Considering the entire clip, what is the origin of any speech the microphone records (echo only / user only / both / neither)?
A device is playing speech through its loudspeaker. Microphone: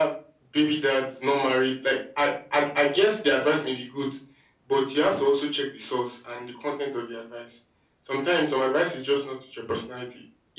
echo only